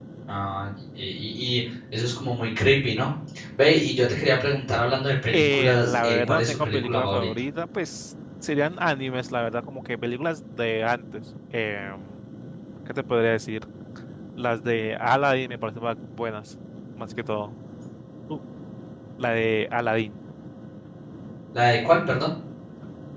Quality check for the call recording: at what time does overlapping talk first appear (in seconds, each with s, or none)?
5.3 s